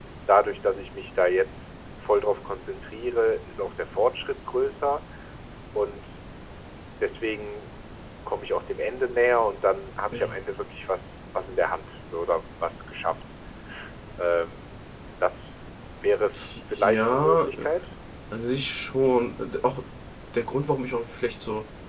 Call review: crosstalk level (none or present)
present